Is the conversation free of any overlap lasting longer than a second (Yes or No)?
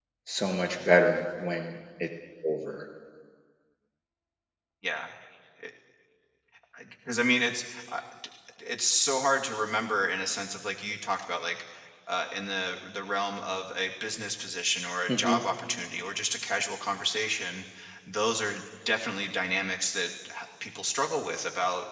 Yes